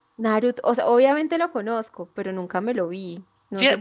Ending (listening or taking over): taking over